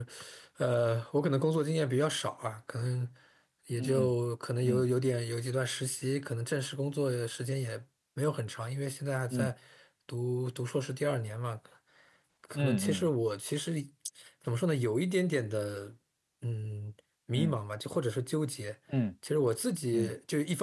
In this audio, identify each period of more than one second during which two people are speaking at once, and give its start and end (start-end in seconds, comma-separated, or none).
none